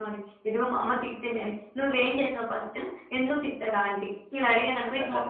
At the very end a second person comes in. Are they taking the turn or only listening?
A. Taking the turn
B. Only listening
A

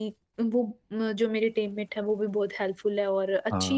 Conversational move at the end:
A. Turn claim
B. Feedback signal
B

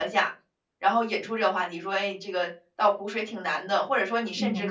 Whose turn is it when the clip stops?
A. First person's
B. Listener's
A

